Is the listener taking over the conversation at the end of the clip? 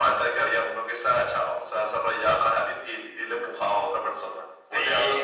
Yes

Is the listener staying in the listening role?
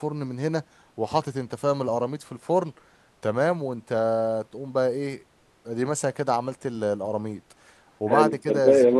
No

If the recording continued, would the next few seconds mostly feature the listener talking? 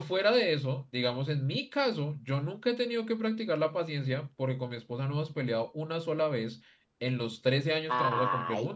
Yes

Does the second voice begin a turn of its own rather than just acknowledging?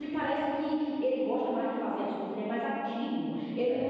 No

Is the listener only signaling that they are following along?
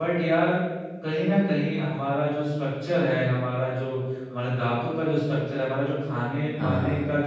Yes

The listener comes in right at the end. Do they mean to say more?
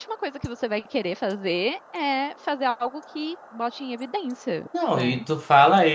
Yes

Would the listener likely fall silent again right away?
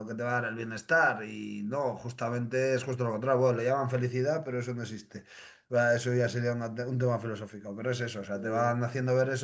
Yes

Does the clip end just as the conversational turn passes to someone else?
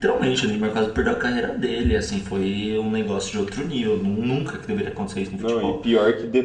Yes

